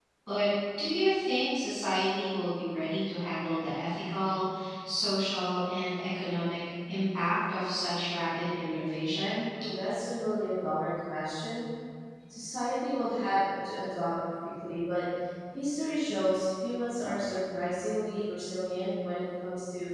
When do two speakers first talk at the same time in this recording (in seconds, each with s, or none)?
none